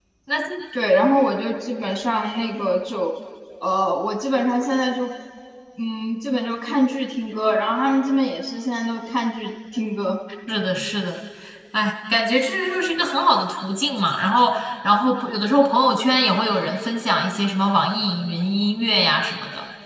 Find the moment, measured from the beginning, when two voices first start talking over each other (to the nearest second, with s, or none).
none